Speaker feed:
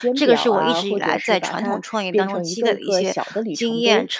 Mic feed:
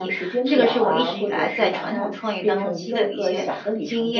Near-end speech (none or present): none